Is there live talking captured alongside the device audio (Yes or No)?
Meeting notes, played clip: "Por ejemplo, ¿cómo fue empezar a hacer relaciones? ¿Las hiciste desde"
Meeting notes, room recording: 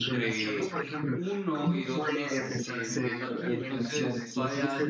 Yes